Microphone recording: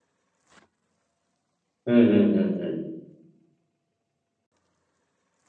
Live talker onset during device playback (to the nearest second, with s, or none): 2 s